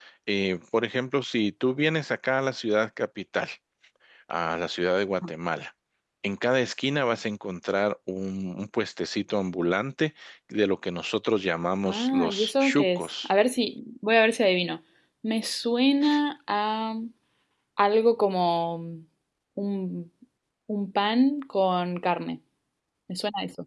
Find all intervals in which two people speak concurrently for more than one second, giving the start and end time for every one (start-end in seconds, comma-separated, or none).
11.8-13.3